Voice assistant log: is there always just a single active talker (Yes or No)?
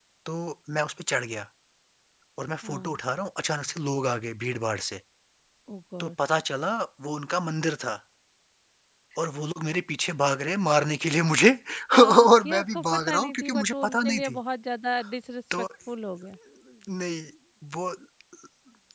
No